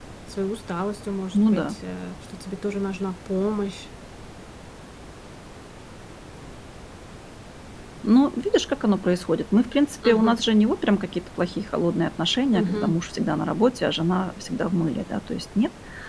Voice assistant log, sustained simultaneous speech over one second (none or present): none